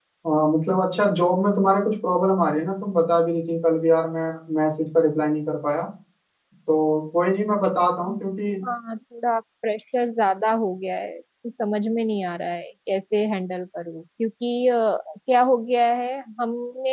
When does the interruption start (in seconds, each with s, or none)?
none